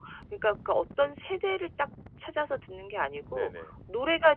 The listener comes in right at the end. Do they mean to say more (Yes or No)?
No